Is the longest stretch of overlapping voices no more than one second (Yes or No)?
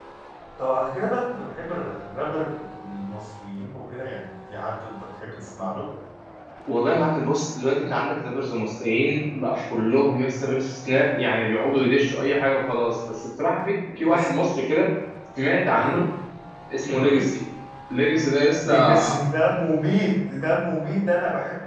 Yes